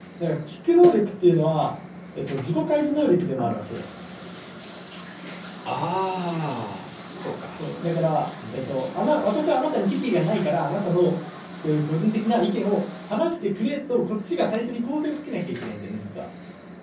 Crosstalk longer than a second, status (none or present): none